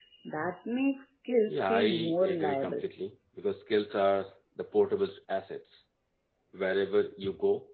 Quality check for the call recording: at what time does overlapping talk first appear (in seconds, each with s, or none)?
1.5 s